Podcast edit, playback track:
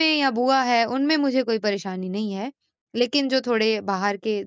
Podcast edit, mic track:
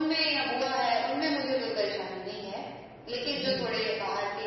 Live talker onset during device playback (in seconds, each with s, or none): 3.3 s